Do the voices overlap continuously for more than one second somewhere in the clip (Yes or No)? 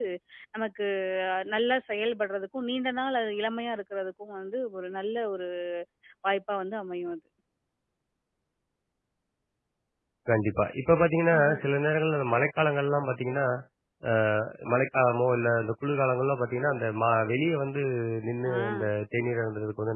No